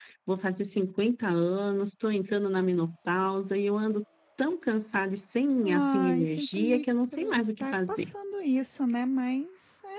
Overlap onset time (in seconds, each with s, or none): 5.6 s